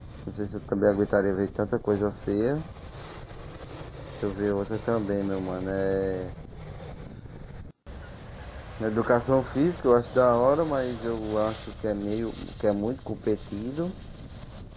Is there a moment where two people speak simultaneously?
No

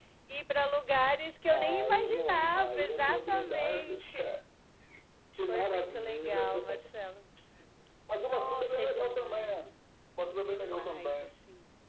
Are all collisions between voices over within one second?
No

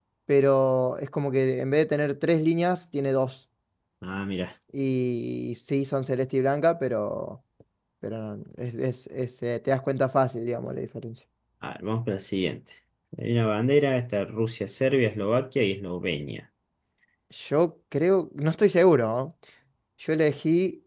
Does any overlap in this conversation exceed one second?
No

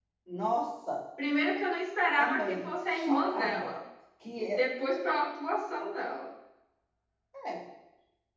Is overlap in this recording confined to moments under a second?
No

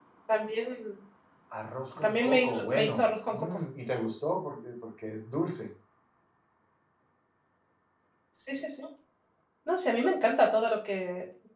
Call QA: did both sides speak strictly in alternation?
No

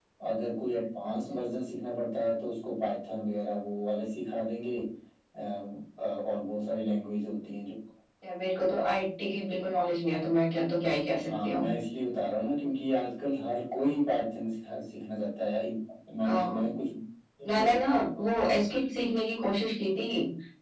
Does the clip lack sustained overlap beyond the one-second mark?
Yes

